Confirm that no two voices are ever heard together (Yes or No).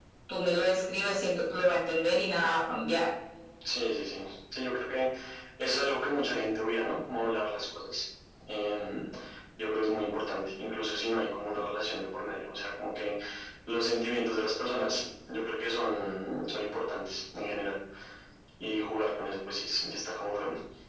Yes